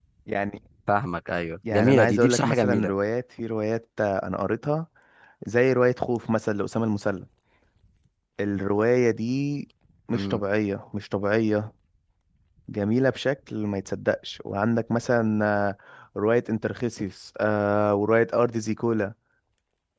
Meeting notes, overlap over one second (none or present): present